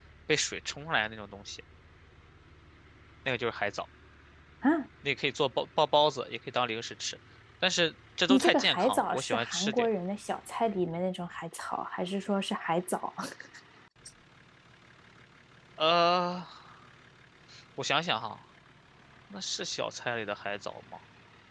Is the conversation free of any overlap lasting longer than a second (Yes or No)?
No